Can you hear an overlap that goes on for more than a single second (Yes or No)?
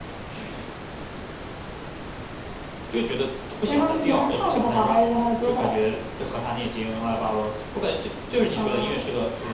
Yes